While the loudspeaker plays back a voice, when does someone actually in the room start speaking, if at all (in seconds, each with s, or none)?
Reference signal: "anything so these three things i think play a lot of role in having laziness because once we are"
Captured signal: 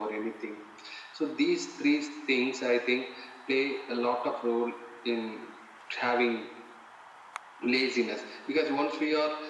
none